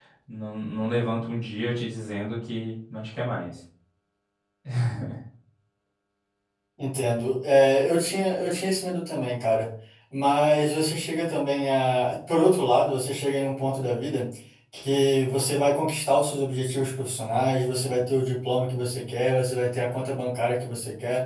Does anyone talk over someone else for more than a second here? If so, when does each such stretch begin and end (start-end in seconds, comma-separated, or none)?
none